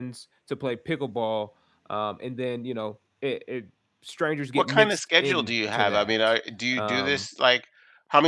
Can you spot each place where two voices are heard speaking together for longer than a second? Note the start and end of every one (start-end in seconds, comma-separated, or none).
4.5-6.1